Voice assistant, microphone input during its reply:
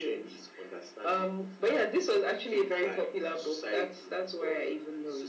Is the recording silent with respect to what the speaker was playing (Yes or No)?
No